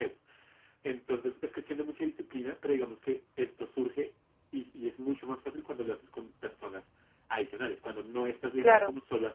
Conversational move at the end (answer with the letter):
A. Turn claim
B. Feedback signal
B